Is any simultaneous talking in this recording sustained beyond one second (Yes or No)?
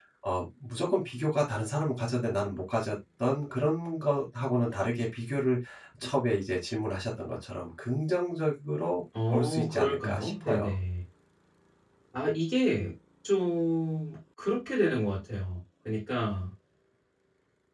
Yes